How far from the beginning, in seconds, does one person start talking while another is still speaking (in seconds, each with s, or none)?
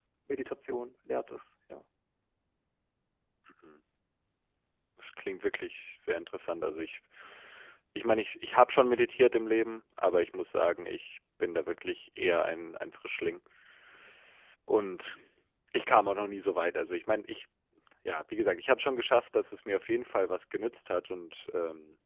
none